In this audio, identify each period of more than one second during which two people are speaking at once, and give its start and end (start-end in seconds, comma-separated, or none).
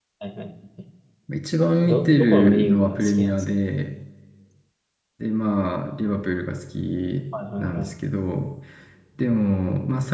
1.8-3.4